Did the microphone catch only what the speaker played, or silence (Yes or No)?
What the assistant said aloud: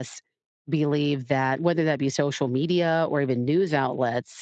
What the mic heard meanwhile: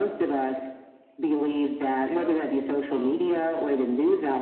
No